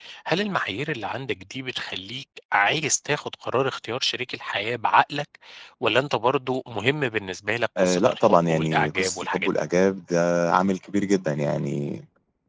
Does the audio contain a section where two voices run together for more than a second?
Yes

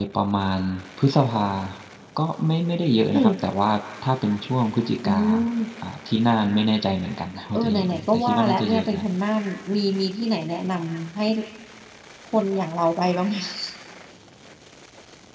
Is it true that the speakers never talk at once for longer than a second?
No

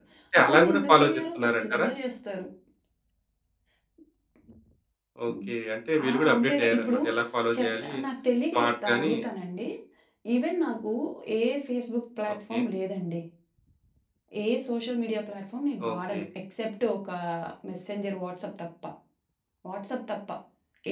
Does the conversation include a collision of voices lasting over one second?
Yes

